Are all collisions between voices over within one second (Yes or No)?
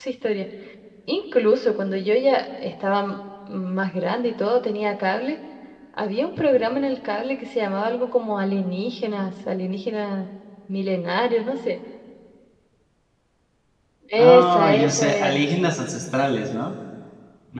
No